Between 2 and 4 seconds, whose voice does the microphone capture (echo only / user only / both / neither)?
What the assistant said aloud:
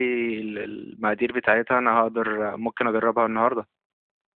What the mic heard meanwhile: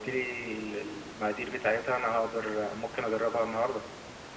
echo only